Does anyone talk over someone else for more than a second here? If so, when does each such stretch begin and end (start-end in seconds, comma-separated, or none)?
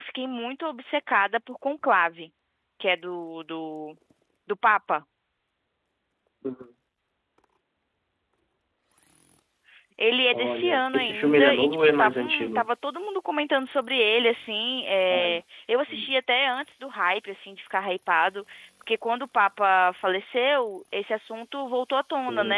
10.3-12.7